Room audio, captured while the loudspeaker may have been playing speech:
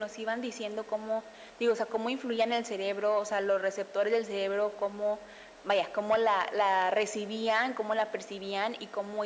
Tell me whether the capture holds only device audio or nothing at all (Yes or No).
Yes